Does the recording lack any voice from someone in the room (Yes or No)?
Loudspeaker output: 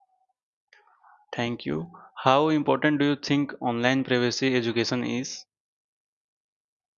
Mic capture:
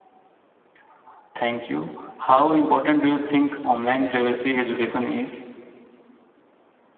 Yes